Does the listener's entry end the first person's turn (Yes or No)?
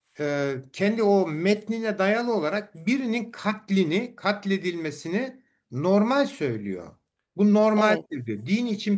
No